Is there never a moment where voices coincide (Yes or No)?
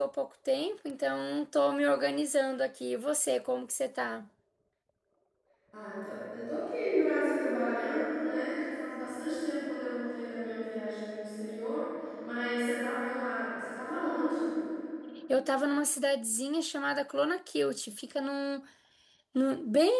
Yes